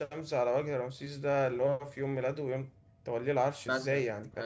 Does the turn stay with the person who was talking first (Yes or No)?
No